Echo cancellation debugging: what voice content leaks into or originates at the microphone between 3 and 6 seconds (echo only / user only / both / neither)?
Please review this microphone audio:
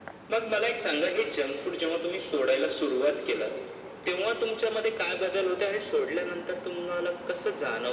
echo only